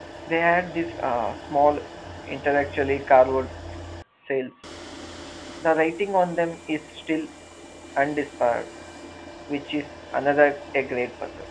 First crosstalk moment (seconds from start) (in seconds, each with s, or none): none